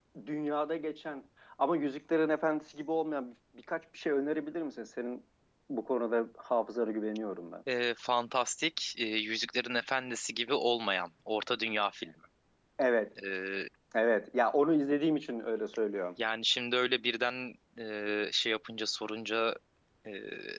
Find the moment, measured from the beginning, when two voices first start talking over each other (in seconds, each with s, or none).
none